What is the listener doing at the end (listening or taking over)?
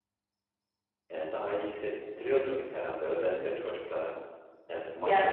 listening